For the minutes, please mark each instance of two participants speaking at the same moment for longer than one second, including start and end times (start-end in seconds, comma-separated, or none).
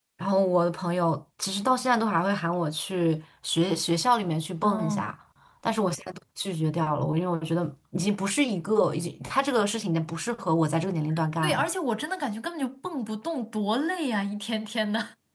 none